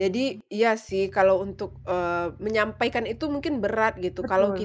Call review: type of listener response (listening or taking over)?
listening